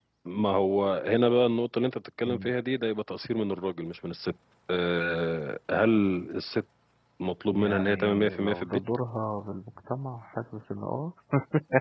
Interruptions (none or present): present